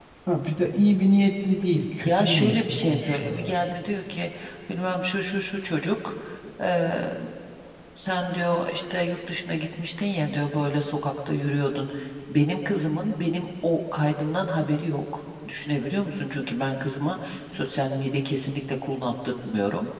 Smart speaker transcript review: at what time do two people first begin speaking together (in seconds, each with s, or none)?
2.0 s